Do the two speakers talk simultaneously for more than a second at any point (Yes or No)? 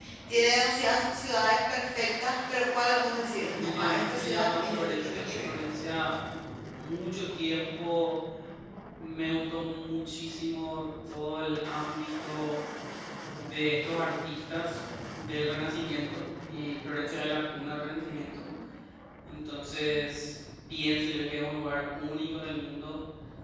Yes